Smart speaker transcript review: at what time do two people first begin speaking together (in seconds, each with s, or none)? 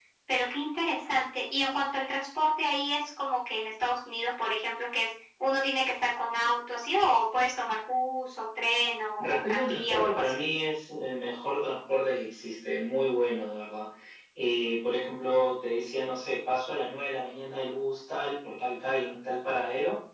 9.2 s